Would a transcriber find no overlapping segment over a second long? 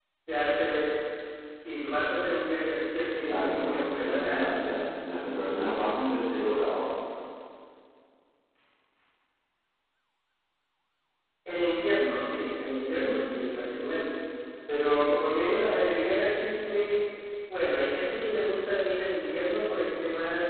No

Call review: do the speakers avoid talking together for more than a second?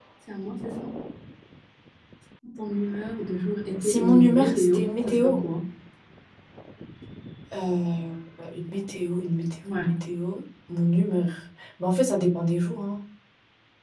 No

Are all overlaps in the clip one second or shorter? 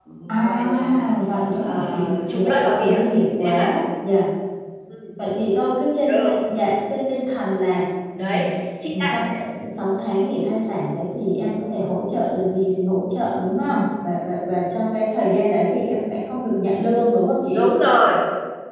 No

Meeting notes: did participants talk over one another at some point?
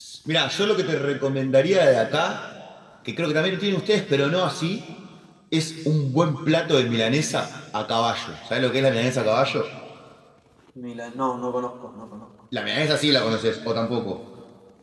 No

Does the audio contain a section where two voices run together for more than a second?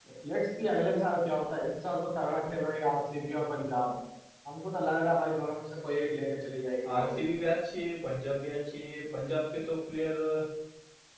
No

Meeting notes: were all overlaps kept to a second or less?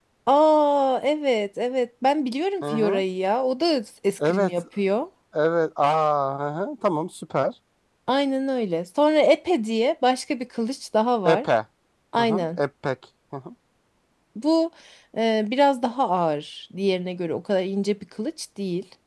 Yes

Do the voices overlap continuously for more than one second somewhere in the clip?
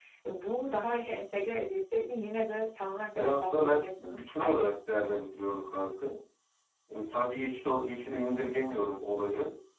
Yes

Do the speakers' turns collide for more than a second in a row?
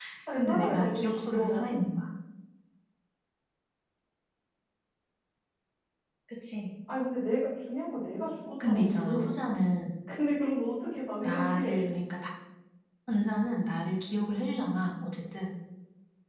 Yes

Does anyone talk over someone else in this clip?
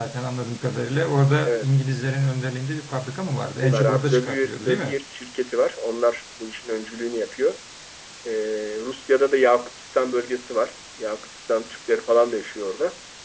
Yes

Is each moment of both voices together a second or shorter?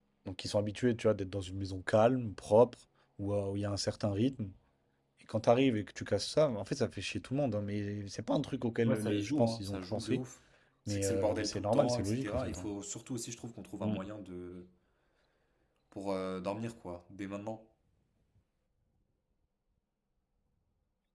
No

